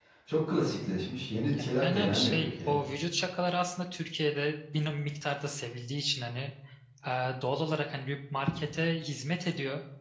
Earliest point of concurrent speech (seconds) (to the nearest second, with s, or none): 2 s